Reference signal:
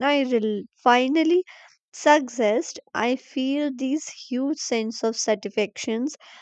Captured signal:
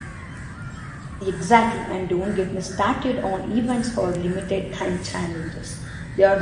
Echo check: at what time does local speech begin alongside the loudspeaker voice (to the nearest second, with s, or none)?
1 s